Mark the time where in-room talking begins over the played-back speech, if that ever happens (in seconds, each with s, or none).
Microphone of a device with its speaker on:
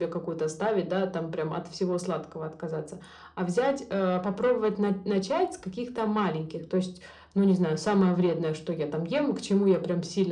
none